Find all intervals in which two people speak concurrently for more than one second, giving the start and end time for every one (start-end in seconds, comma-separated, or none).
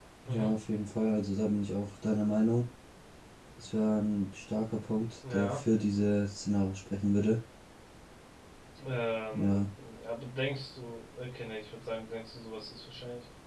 none